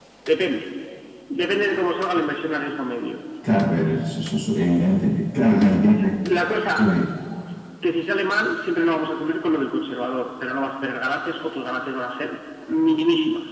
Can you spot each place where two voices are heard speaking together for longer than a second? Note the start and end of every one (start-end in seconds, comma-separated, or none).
none